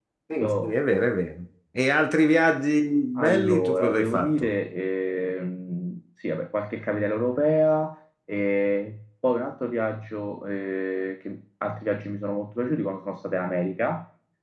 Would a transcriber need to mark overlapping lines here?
Yes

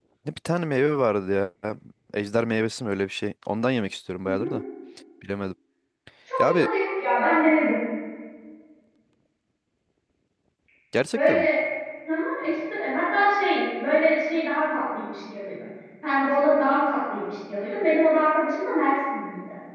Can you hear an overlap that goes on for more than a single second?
No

